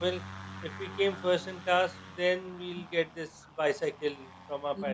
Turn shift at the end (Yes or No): No